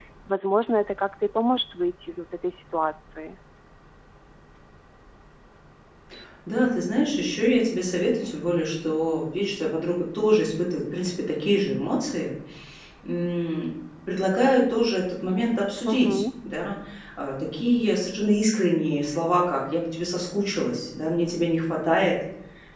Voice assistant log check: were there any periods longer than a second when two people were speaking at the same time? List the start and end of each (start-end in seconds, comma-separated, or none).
none